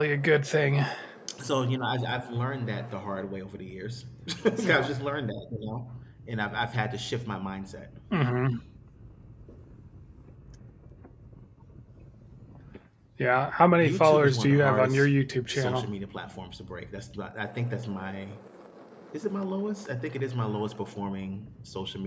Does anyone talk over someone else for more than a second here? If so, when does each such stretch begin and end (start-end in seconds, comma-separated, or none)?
13.8-15.1